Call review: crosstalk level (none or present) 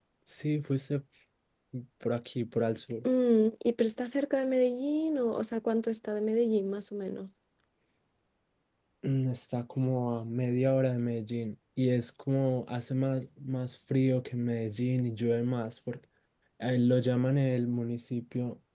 none